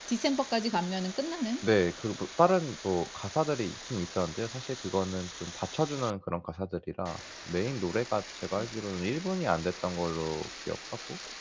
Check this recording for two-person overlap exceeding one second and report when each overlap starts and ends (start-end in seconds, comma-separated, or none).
none